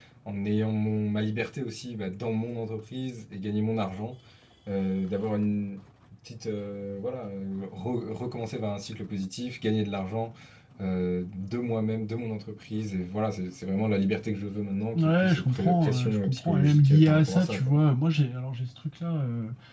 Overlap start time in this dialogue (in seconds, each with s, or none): 14.9 s